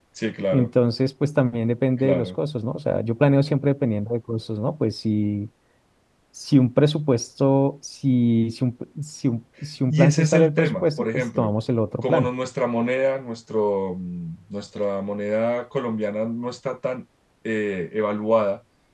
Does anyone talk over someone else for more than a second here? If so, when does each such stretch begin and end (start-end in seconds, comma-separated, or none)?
9.9-11.5